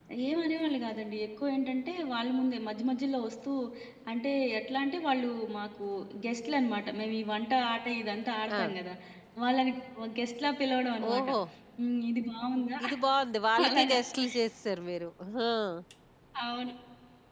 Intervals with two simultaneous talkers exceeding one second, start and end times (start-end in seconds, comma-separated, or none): none